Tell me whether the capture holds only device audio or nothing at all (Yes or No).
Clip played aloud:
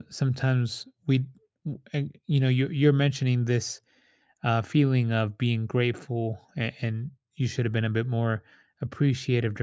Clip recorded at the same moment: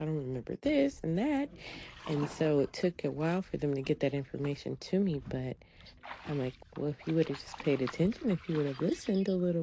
No